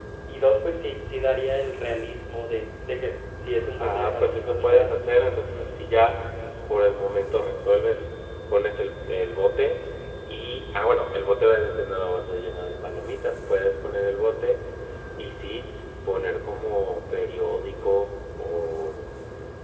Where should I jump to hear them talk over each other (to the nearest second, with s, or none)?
4 s